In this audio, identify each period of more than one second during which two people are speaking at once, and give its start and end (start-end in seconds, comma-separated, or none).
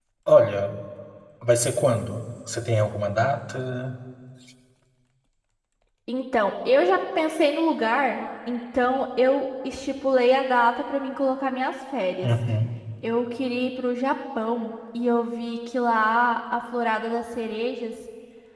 none